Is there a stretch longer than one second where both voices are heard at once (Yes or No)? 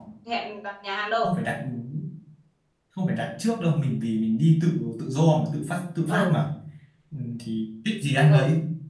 No